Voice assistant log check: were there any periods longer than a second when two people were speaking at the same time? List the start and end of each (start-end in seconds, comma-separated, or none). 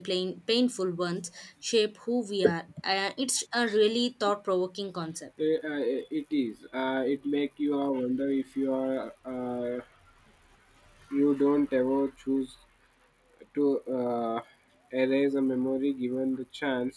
none